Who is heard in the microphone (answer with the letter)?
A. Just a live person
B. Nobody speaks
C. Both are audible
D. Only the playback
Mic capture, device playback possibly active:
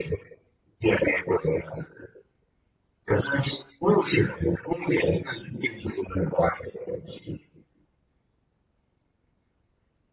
D